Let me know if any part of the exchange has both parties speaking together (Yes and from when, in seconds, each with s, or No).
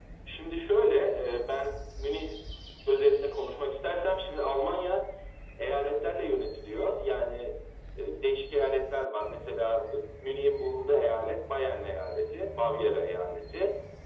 No